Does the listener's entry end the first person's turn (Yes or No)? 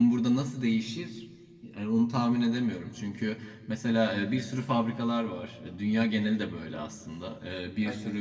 No